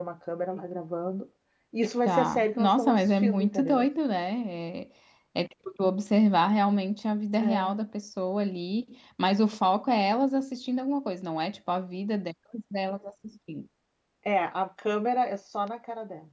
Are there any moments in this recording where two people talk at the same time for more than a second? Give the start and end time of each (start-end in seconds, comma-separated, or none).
2.1-3.9